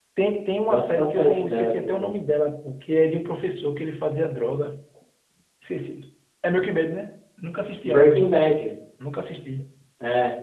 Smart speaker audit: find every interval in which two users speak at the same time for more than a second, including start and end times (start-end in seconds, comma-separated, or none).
0.7-2.1